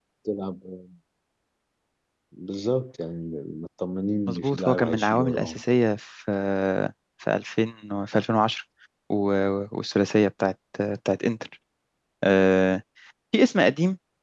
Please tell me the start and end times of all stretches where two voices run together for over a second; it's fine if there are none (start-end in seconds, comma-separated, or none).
4.3-5.6